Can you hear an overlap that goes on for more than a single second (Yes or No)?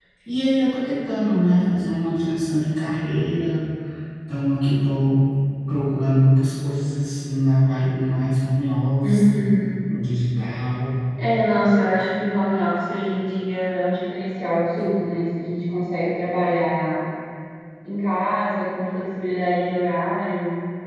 No